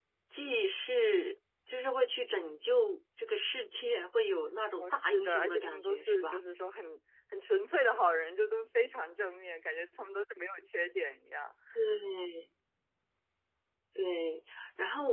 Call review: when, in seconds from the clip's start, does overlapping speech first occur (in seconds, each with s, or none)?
4.7 s